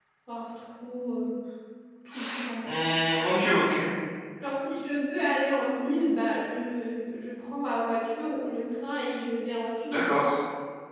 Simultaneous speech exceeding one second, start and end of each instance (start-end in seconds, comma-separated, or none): none